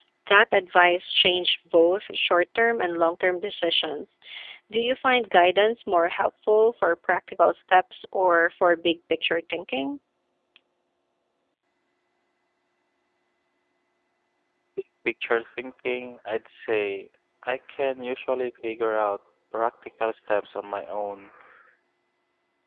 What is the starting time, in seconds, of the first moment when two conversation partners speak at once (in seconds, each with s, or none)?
none